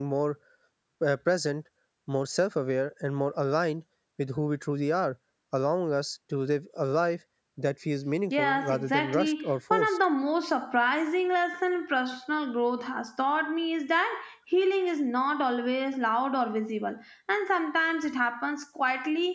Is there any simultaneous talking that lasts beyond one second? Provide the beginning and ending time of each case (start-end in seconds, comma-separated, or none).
8.3-10.0